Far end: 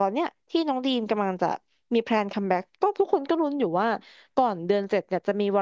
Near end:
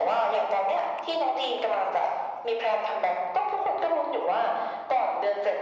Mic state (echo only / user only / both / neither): echo only